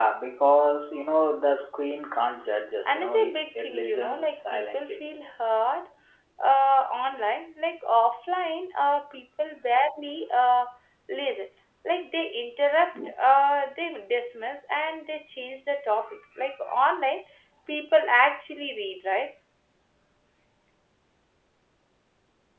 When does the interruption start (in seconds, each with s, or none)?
2.9 s